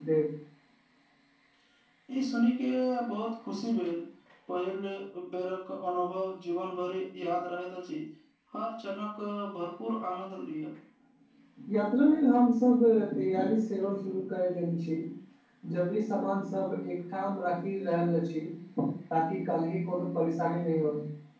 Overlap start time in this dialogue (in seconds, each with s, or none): none